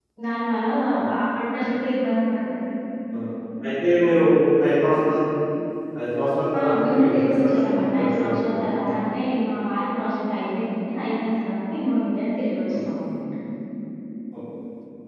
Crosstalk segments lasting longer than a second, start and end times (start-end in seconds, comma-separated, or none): 6.6-8.7